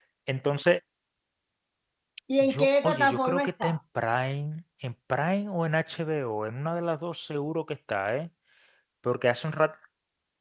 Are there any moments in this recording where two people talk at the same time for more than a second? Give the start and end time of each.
2.4-3.8

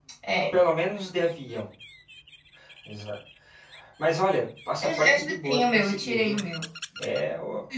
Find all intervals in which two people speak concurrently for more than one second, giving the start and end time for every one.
4.8-6.4

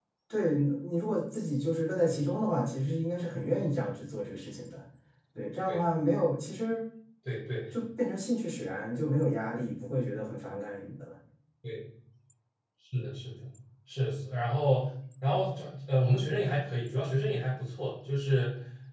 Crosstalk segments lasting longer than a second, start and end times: none

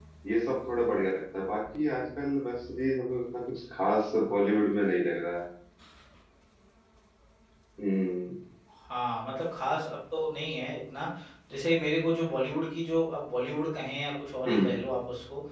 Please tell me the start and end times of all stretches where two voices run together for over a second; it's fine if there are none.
none

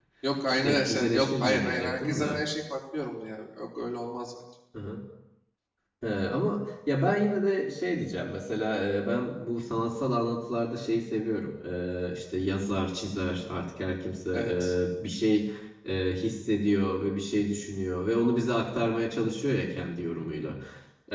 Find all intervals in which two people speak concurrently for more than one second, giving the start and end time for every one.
0.6-2.4

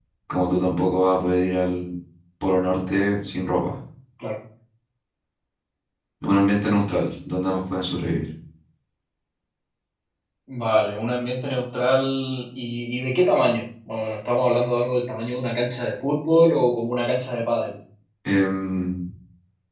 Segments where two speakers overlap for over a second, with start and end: none

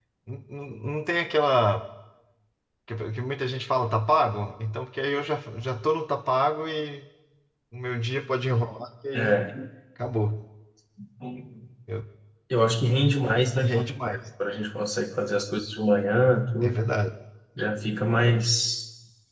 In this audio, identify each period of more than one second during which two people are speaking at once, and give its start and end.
none

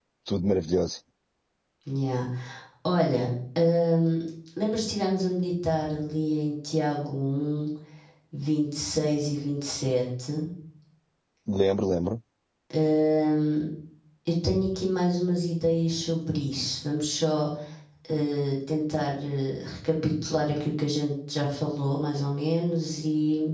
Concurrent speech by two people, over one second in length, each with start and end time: none

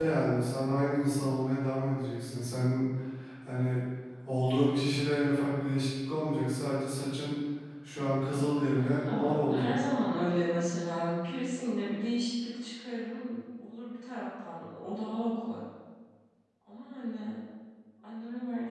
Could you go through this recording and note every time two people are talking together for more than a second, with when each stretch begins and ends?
8.3-9.7

